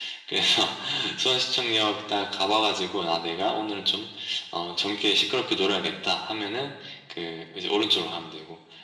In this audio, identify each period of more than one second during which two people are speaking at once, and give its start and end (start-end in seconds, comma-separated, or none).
none